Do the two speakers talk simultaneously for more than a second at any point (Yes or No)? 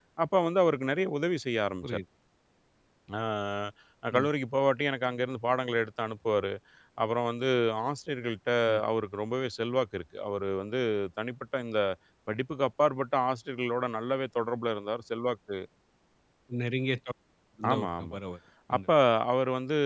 No